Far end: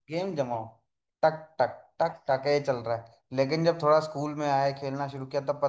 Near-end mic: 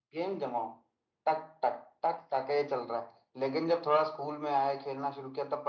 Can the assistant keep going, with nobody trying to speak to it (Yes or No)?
Yes